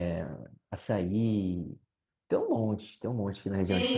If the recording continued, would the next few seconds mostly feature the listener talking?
Yes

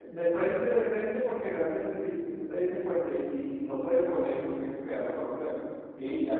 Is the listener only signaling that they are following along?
Yes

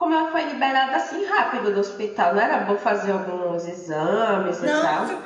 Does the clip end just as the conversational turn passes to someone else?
Yes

